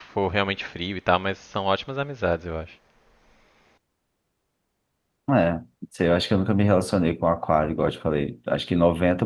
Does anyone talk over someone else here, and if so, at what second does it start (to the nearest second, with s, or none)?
none